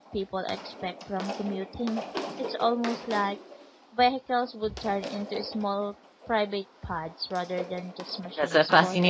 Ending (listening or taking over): taking over